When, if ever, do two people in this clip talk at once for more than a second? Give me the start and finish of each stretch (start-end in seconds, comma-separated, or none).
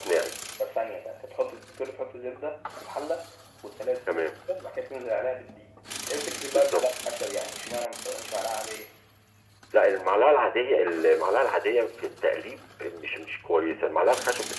none